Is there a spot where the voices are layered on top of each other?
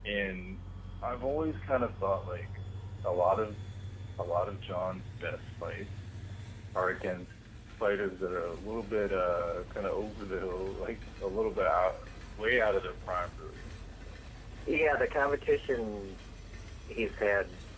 No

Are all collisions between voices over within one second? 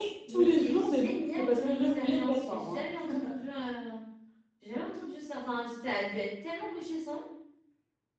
No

